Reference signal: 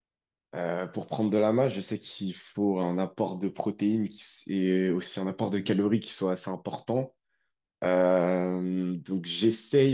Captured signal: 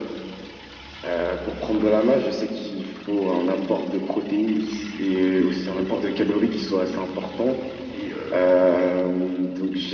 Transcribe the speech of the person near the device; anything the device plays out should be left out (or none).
Et euh,